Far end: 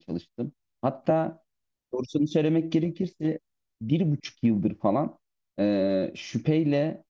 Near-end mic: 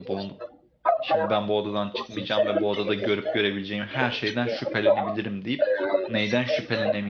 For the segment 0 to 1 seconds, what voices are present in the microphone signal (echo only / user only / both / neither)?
both